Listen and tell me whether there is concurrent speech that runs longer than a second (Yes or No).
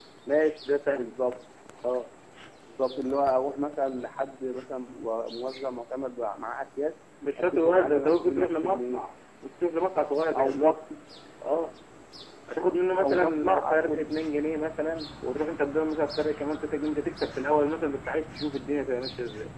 Yes